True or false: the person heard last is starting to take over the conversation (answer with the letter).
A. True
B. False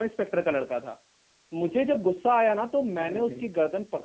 B